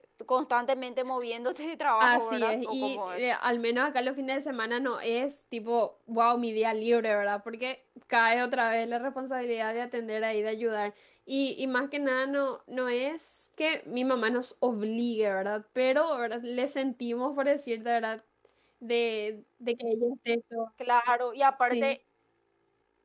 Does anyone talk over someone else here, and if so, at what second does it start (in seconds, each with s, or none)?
2.0 s